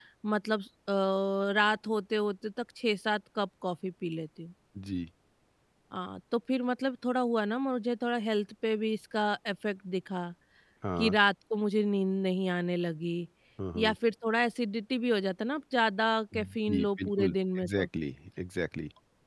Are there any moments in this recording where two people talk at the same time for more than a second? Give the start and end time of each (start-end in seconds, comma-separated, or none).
16.4-17.9